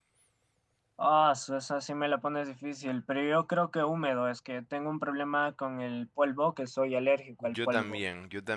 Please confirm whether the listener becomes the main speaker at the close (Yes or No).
Yes